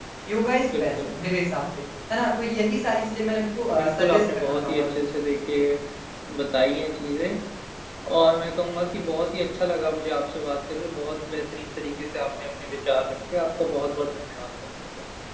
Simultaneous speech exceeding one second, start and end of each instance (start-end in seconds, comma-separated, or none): 3.7-5.0